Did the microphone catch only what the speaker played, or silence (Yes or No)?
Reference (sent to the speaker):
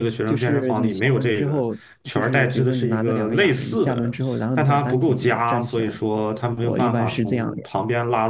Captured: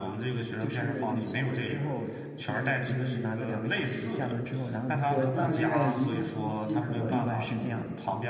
No